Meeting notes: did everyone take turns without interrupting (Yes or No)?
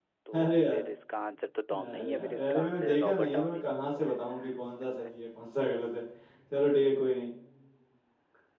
No